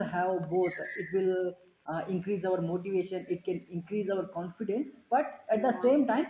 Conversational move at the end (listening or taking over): listening